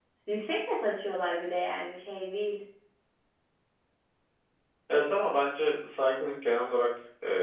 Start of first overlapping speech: none

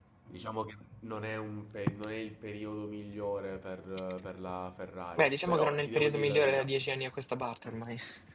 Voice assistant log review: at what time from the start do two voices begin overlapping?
5.2 s

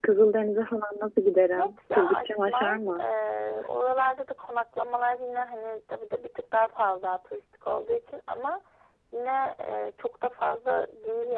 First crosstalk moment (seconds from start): 1.6 s

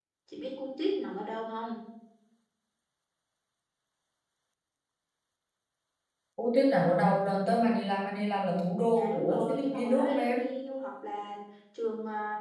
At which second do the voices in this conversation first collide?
8.9 s

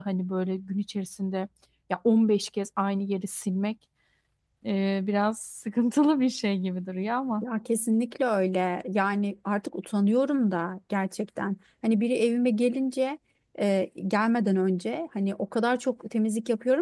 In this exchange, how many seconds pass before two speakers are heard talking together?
none

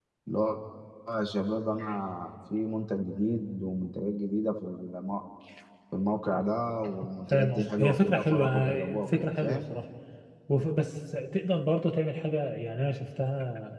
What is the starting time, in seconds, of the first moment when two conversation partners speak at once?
7.3 s

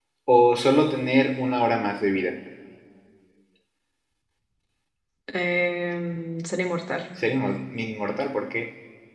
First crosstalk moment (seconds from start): none

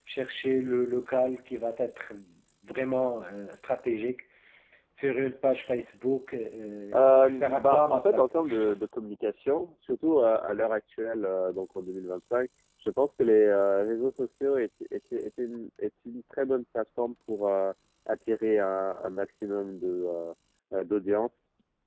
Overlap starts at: 6.9 s

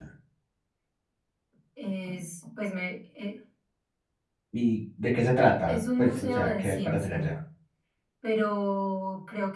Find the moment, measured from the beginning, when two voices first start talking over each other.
5.7 s

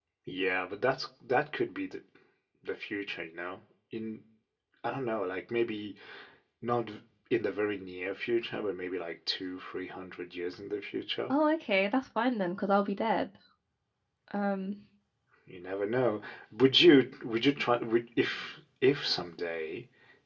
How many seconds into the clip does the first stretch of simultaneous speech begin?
none

